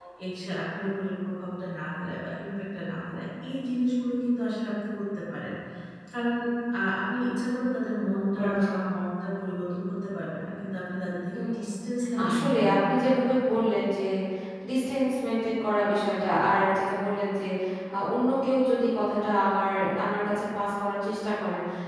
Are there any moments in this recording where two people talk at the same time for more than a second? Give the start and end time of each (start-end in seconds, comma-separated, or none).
12.2-13.6